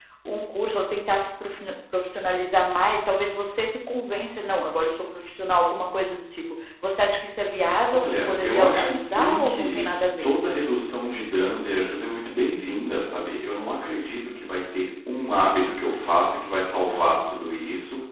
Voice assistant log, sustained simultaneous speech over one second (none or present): present